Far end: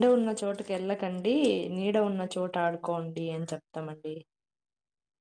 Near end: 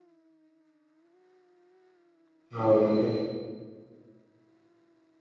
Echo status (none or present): none